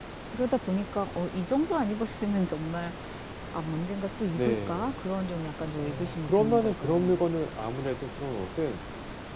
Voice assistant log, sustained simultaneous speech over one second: present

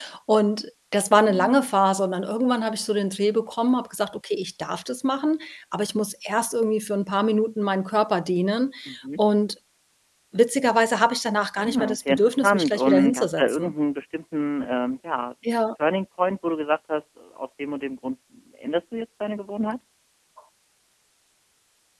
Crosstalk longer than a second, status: present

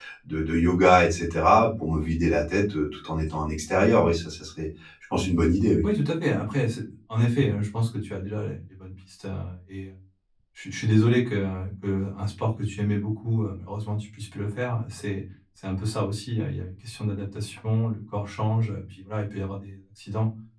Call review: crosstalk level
none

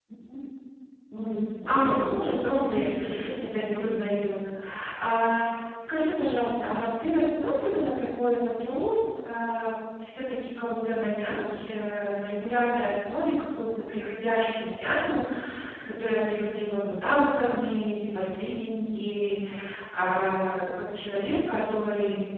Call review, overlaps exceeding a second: present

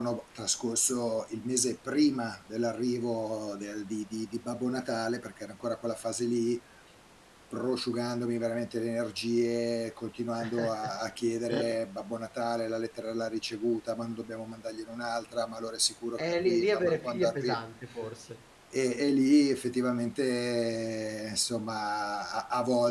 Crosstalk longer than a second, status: present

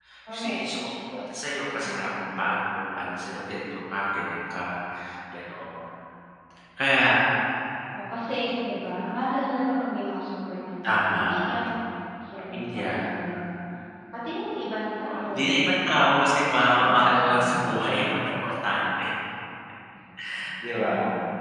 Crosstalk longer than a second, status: present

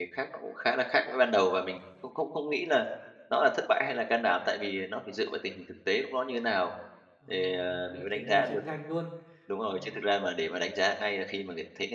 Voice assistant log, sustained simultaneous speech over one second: present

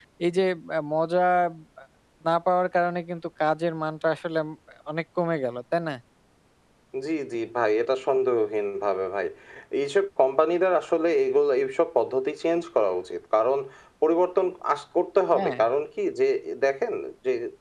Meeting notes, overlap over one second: none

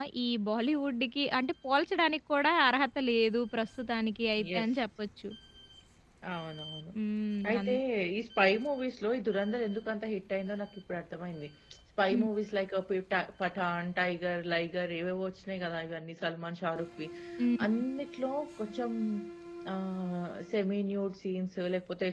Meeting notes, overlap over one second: none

